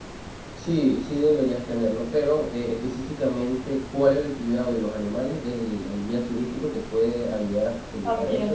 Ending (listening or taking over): taking over